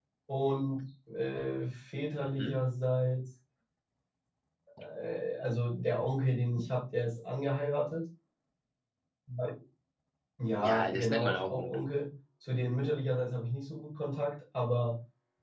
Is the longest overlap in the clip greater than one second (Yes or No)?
Yes